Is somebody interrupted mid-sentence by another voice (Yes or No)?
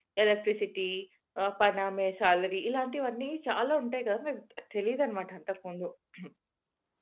No